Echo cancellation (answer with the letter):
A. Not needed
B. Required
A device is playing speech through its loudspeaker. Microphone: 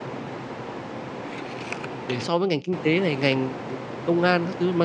A